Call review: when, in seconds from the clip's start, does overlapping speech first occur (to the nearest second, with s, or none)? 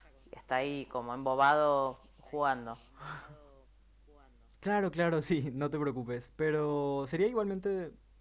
none